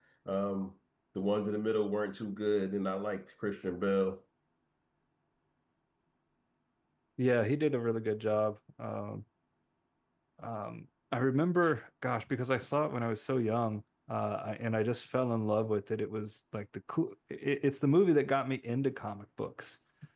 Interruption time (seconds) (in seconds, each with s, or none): none